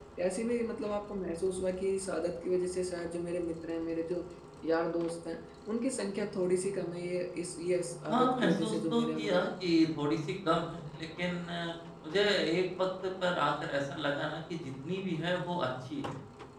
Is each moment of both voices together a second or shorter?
No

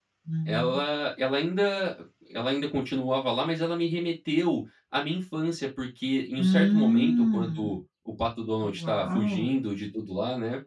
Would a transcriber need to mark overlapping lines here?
Yes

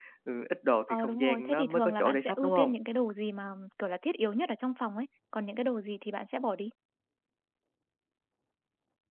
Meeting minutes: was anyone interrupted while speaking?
Yes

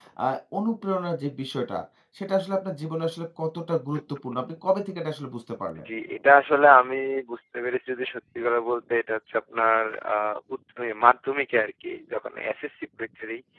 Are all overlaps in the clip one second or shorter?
Yes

